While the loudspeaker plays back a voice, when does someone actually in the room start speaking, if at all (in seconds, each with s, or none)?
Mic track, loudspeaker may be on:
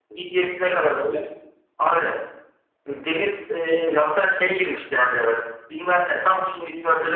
none